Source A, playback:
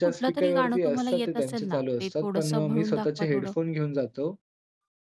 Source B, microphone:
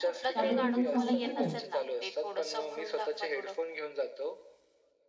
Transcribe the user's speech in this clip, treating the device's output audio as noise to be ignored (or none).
त्याबद्दल काही सांगू शकाल?